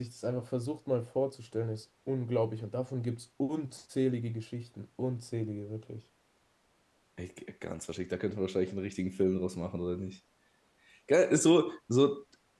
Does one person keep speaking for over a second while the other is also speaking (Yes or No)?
No